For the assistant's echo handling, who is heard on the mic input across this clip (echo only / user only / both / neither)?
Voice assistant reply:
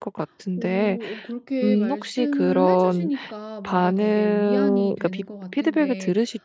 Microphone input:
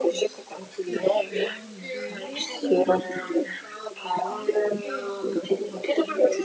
both